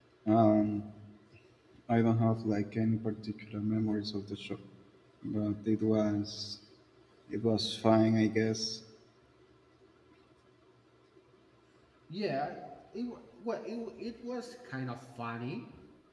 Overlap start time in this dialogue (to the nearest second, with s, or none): none